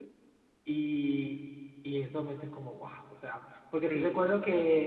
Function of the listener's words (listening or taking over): listening